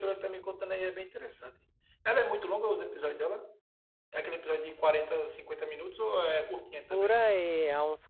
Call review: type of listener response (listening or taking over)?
taking over